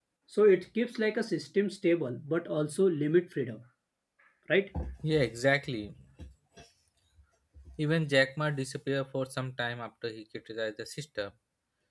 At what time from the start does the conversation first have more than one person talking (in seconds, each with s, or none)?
none